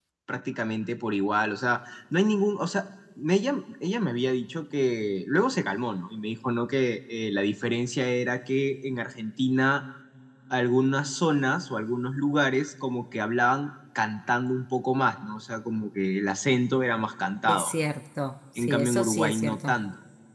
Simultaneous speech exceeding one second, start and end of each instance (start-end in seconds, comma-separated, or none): 18.6-19.8